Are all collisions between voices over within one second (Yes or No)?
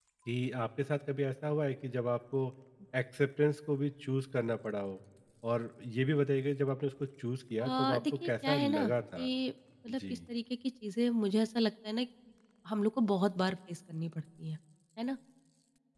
No